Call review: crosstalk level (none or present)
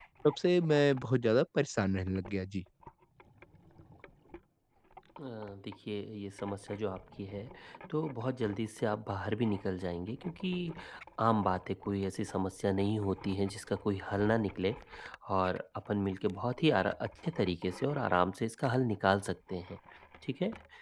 none